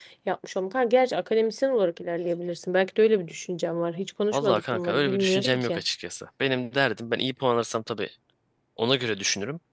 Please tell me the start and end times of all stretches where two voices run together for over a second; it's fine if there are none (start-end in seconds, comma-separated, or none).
4.3-5.8